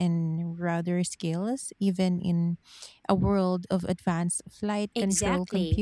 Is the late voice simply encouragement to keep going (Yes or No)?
No